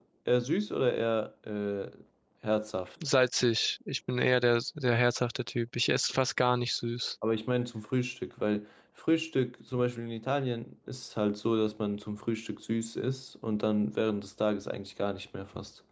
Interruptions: none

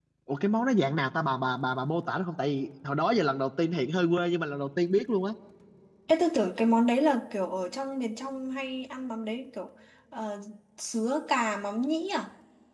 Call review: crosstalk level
none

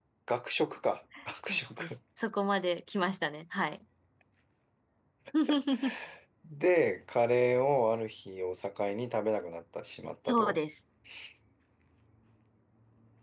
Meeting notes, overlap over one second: none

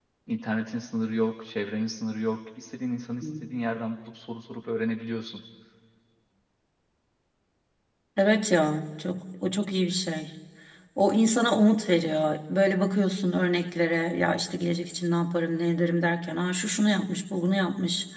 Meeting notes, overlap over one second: none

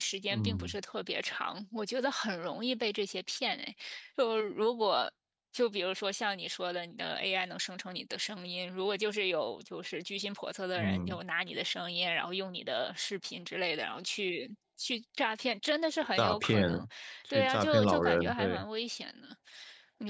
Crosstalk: present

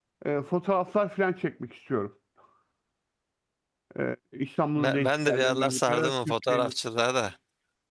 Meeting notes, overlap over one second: present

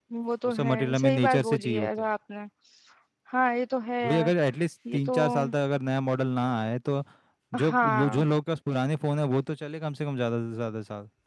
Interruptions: present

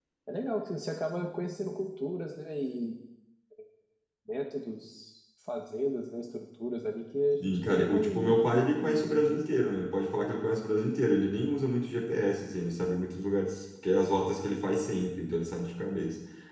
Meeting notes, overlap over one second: present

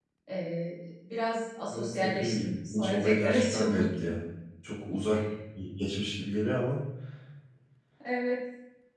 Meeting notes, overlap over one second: present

